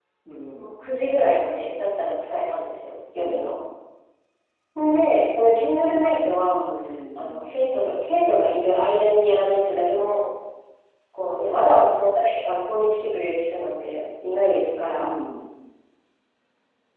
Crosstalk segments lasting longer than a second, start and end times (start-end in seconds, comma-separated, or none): none